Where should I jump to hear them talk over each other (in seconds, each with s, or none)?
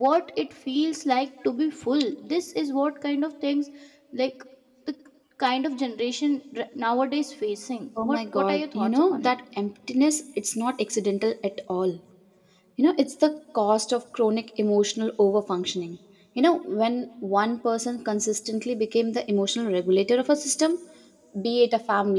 8.0 s